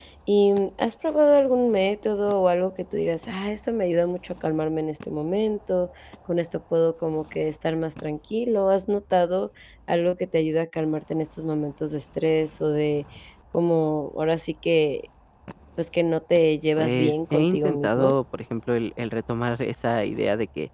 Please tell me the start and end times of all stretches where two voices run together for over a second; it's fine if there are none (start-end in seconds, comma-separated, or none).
16.8-18.1